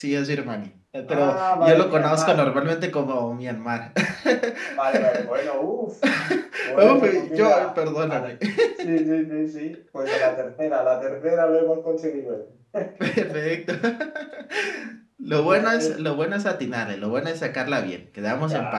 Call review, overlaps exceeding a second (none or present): present